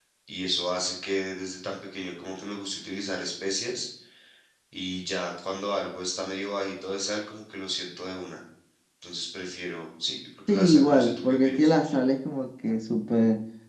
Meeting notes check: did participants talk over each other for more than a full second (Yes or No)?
Yes